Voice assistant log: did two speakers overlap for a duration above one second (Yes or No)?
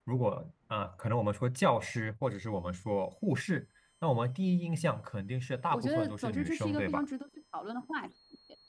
Yes